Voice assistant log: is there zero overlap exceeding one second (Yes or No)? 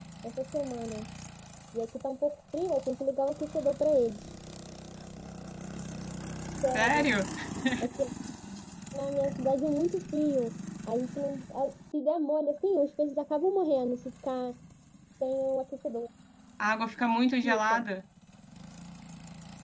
Yes